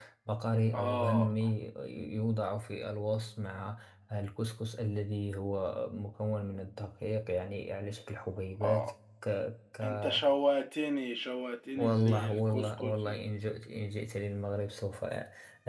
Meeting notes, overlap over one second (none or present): present